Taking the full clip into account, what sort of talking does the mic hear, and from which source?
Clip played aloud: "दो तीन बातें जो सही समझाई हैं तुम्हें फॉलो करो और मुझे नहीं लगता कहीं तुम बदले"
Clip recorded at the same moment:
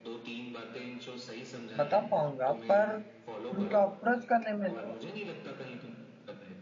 both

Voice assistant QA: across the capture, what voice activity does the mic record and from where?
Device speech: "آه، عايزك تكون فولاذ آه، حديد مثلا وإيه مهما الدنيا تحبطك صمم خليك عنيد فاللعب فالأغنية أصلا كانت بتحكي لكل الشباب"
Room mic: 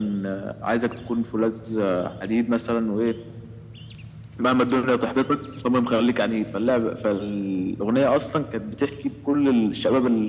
echo only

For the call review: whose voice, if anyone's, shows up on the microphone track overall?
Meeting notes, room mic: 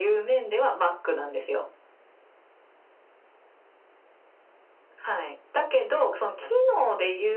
echo only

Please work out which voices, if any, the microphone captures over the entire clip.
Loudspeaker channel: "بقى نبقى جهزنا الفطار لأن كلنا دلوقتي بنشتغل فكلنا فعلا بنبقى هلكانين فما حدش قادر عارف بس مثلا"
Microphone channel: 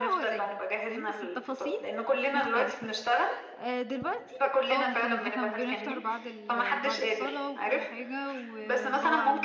both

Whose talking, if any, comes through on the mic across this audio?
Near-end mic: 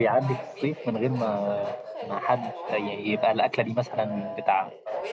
both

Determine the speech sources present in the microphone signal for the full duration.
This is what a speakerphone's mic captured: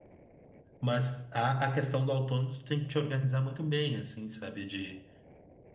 user only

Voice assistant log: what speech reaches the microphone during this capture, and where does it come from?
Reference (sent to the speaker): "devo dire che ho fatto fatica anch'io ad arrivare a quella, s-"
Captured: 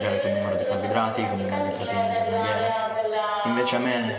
both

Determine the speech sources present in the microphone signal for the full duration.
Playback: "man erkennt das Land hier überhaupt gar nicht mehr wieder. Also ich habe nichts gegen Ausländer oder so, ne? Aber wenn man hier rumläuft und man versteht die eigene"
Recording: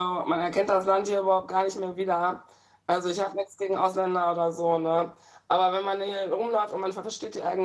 echo only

